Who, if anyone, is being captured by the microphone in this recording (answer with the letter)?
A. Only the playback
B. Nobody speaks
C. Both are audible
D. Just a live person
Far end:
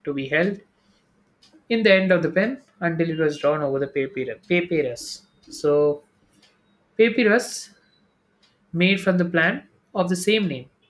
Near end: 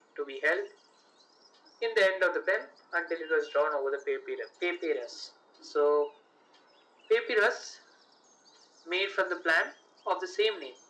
A